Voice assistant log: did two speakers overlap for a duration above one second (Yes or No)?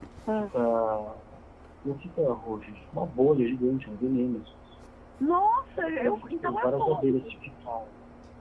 Yes